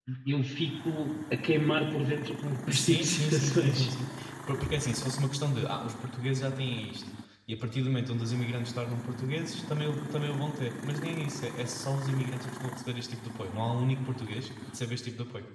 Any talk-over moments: Yes, from 2.7 s

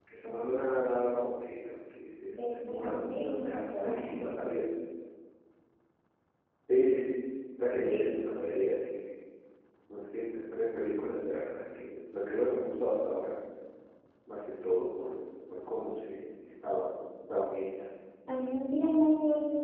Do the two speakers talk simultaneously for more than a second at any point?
Yes, from 2.4 s

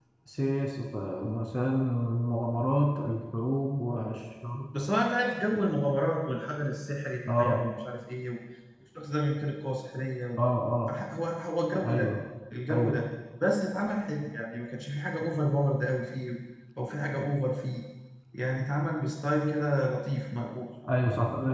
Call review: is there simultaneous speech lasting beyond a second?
No

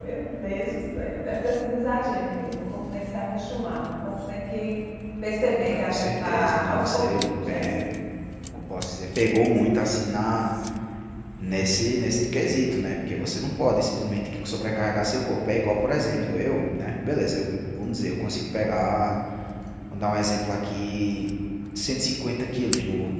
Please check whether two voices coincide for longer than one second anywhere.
Yes, from 5.7 s

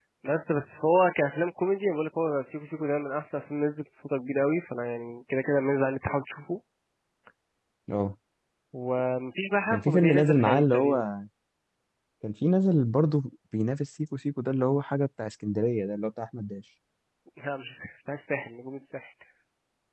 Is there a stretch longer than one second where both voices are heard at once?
Yes, from 9.7 s

